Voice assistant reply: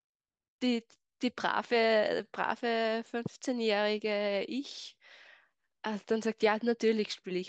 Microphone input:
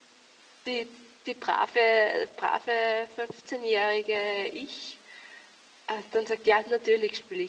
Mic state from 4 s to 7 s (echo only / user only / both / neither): echo only